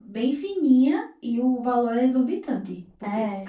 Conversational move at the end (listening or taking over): listening